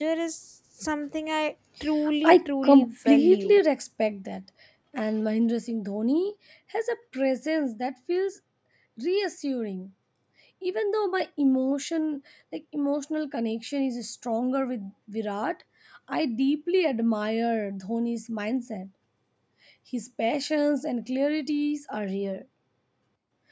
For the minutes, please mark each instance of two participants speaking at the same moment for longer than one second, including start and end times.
2.2-3.6

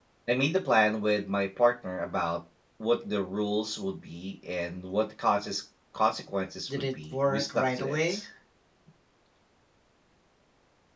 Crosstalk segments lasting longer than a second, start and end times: 6.8-8.2

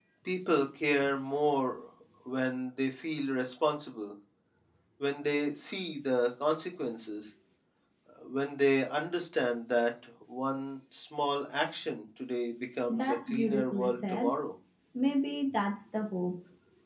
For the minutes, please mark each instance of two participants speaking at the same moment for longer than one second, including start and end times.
12.9-14.4

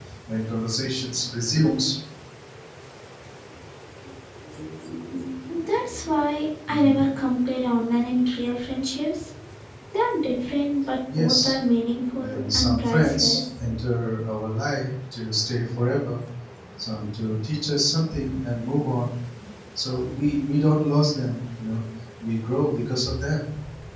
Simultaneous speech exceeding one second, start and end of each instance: 12.2-13.6

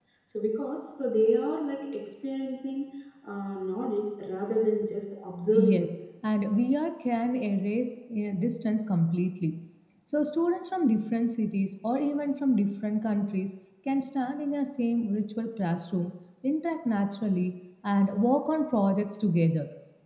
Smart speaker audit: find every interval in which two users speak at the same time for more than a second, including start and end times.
none

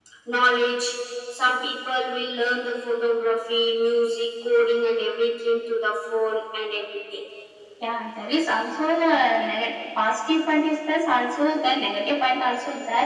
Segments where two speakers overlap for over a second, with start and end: none

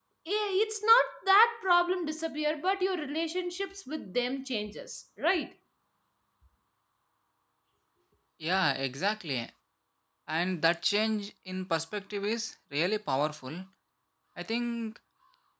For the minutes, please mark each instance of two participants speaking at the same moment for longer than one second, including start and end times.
none

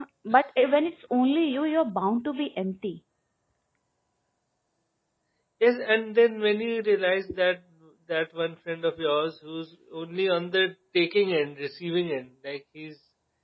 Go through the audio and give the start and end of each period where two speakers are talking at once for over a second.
none

